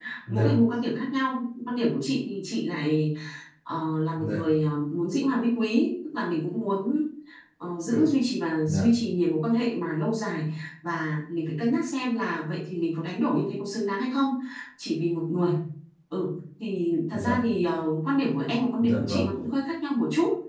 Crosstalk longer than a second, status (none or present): none